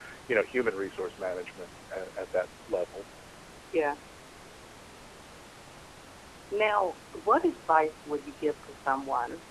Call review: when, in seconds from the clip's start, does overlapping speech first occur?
none

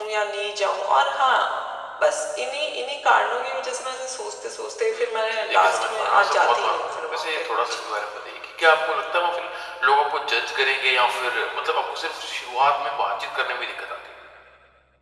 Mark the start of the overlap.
4.9 s

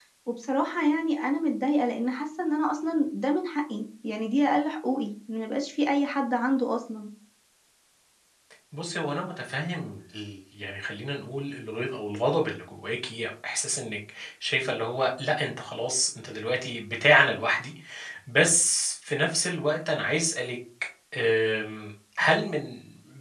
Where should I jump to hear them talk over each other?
none

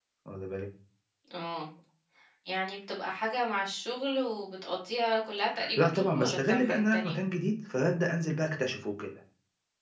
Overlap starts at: 5.5 s

